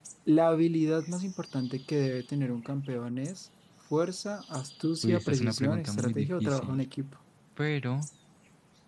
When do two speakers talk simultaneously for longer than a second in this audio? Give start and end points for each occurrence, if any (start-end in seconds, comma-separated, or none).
5.0-6.8